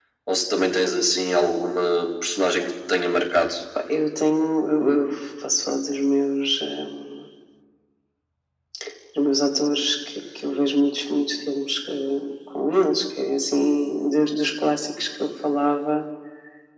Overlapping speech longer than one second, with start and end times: none

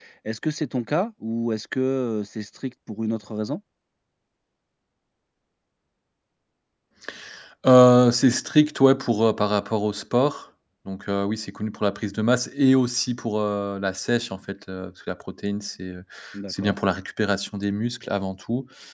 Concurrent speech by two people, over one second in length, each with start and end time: none

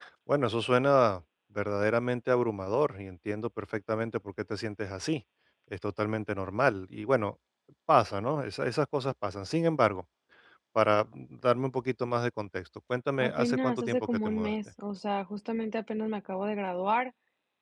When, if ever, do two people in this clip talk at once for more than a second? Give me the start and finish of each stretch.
13.2-14.5

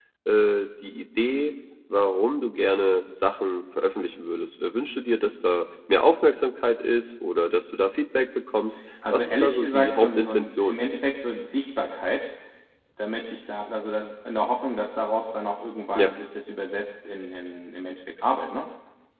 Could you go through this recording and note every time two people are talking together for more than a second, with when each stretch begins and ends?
9.1-10.8

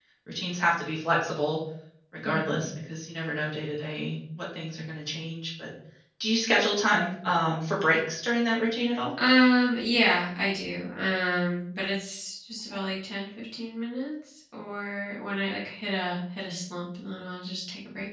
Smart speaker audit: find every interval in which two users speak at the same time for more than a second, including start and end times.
none

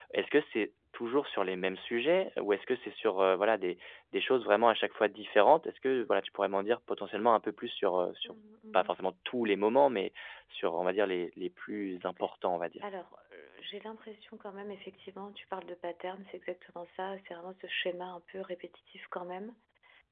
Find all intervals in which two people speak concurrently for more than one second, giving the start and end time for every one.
none

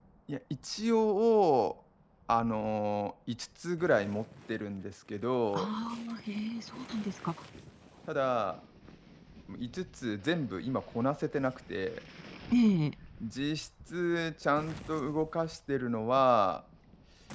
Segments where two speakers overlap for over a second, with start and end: none

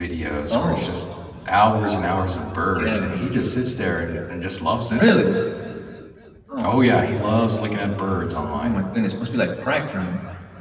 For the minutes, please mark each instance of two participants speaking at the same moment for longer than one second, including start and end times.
none

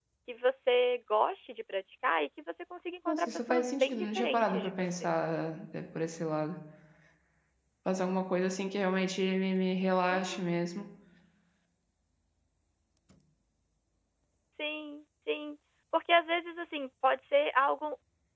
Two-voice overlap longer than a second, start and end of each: 3.1-4.9

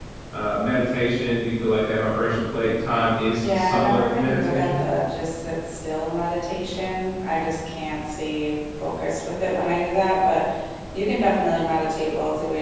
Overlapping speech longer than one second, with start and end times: 3.4-4.9

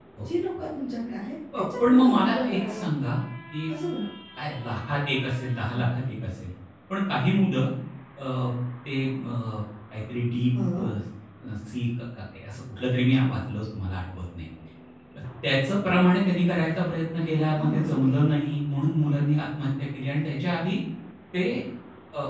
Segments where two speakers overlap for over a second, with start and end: 1.6-2.9

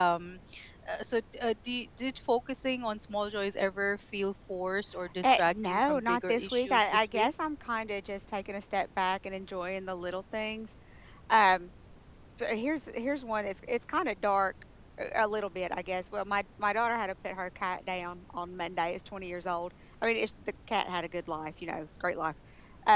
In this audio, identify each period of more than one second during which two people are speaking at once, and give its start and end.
5.2-7.3

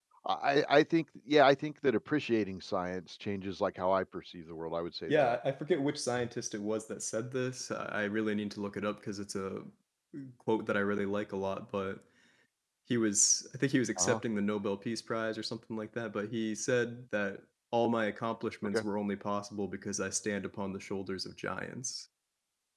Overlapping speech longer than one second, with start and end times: none

